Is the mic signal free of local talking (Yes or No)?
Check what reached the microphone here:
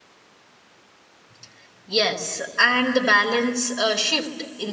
No